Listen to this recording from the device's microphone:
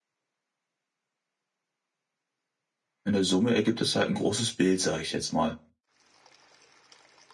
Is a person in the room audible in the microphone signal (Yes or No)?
Yes